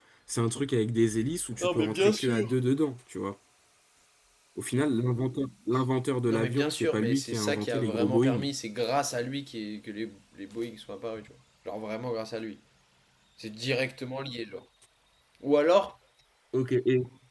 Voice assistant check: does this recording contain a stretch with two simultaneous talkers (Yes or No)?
Yes